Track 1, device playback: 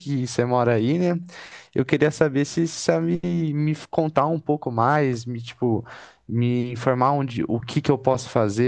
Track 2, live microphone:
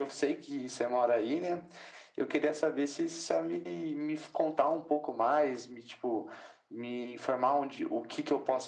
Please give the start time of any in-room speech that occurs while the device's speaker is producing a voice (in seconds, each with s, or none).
none